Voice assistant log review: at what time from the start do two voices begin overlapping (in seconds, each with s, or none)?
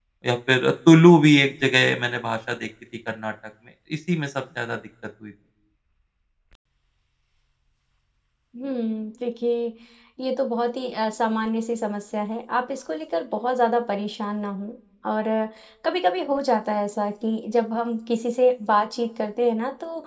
none